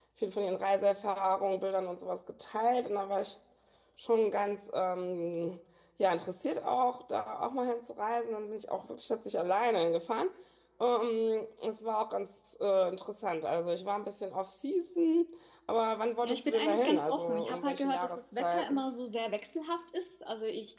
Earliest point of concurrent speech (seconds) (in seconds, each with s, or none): 16.2 s